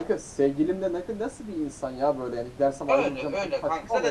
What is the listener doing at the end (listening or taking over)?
taking over